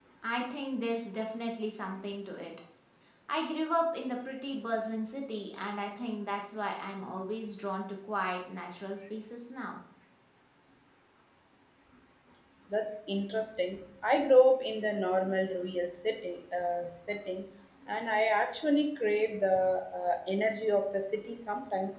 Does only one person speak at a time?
Yes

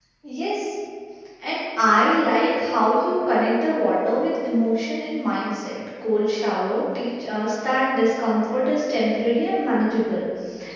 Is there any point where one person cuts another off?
No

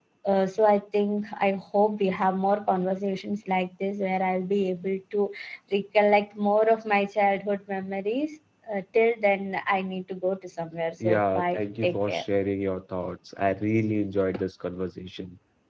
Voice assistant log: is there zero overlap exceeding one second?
No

